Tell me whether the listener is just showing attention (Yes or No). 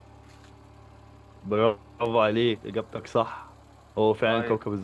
Yes